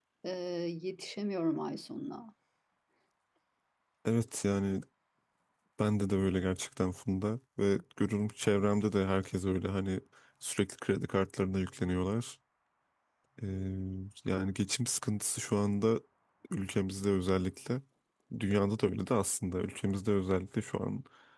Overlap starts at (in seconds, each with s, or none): none